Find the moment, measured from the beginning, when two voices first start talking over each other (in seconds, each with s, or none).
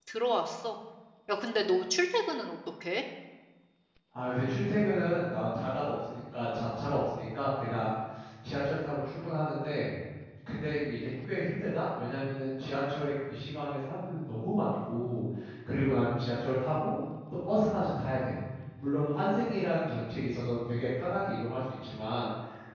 none